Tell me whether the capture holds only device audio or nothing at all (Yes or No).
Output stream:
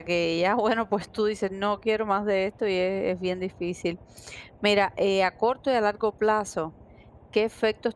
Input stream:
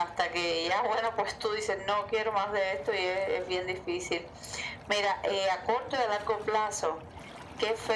Yes